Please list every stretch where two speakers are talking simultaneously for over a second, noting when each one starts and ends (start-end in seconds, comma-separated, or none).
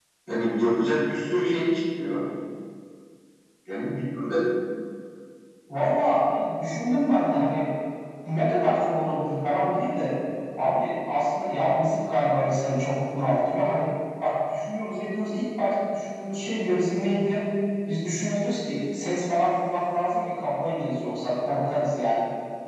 none